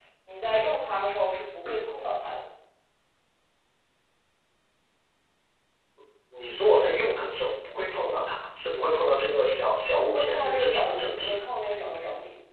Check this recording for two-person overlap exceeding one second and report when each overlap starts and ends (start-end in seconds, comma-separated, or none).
10.1-11.4